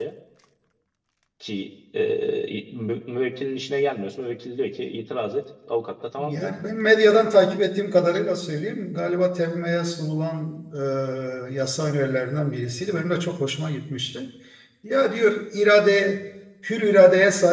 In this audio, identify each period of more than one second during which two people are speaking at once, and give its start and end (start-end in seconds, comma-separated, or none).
none